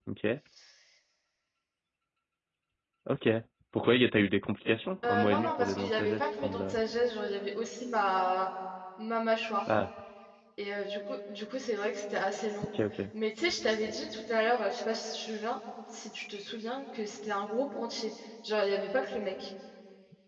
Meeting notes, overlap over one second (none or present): present